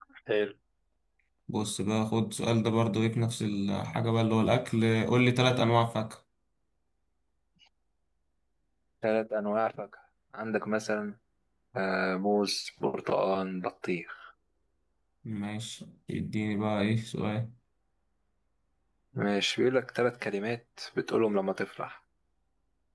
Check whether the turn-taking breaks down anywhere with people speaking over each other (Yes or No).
No